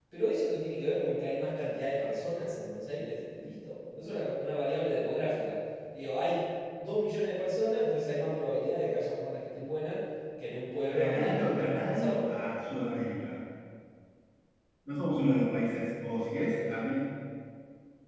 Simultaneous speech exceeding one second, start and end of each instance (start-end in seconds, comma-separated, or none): 10.9-12.2